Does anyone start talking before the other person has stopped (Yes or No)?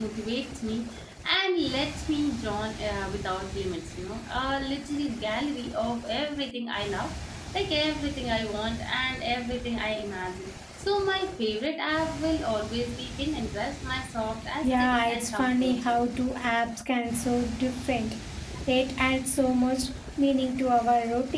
Yes